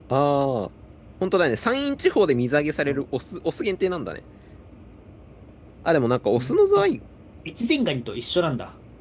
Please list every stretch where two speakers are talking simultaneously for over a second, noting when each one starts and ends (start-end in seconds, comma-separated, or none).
none